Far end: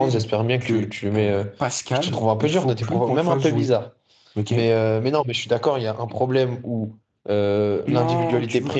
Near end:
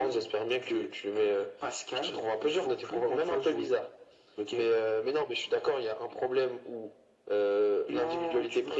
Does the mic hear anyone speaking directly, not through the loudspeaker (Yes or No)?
No